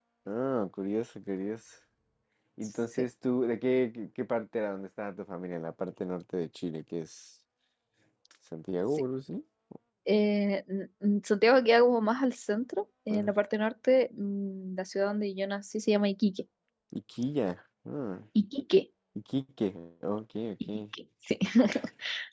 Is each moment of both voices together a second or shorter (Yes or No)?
Yes